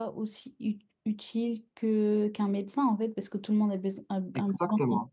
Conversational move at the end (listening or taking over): listening